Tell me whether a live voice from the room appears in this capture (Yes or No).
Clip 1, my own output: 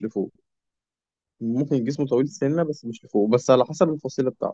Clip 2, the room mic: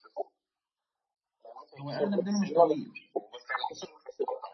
Yes